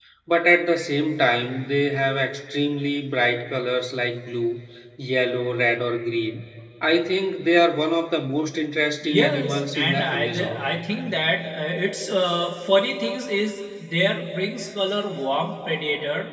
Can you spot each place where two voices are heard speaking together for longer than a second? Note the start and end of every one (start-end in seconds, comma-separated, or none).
9.0-10.6